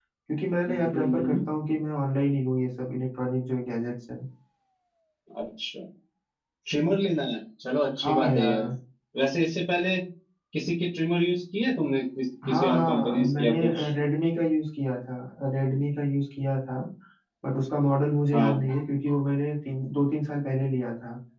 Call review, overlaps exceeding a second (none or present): present